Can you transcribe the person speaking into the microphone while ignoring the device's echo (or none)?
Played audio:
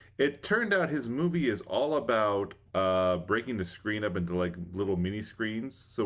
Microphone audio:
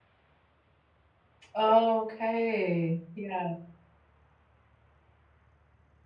Okay. Yeah.